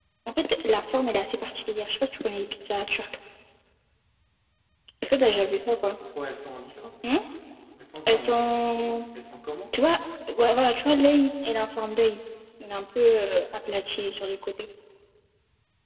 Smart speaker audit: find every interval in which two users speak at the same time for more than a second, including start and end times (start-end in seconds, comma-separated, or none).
none